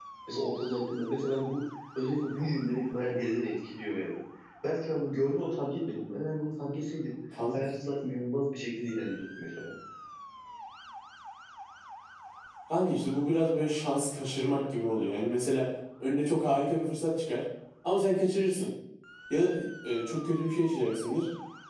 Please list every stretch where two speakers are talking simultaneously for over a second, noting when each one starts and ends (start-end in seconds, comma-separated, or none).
none